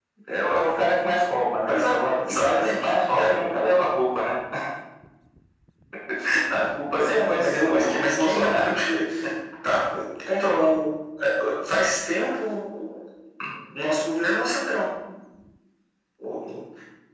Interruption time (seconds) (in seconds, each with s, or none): 1.7 s